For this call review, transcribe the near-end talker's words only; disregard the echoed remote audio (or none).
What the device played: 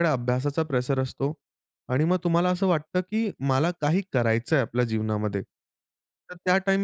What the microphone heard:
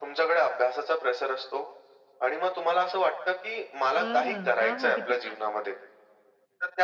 बरं. वाह! वाह! किती छान!